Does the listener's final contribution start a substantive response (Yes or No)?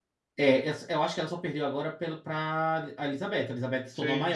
No